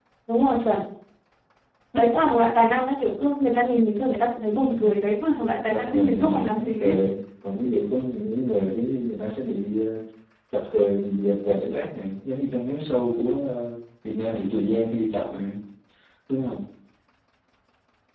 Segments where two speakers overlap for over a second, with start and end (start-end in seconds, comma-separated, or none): 5.6-6.9